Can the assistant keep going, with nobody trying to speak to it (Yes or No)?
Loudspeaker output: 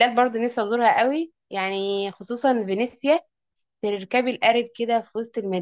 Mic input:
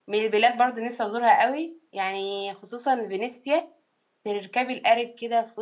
Yes